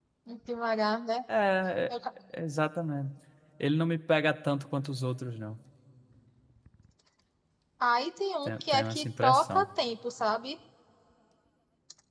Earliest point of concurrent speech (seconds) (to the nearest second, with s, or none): 8 s